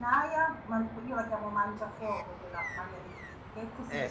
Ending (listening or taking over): listening